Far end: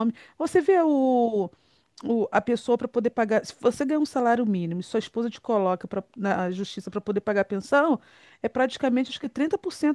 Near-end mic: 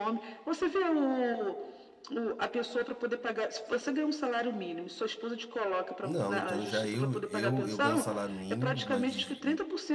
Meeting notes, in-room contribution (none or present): present